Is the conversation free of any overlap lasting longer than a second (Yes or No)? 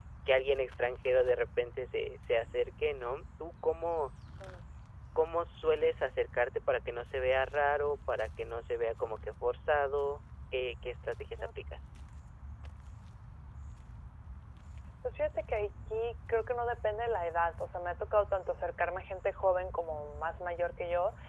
Yes